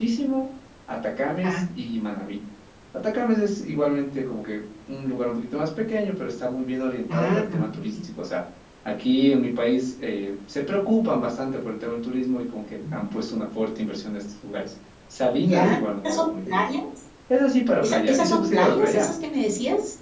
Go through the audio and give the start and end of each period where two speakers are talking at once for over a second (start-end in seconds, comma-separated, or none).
15.4-16.6, 17.8-19.1